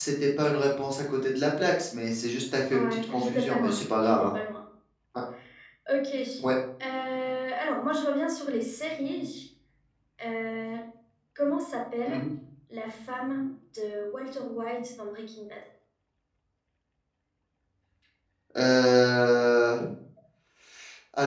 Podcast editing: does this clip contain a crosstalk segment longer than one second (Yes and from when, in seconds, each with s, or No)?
Yes, from 2.7 s